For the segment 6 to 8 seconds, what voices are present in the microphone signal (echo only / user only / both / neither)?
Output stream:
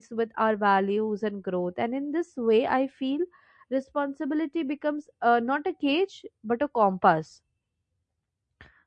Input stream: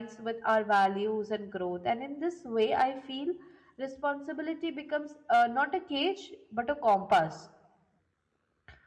echo only